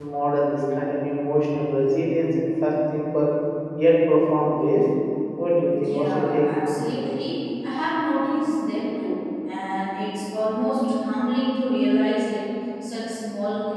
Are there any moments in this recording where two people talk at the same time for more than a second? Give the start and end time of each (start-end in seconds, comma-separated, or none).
5.8-7.1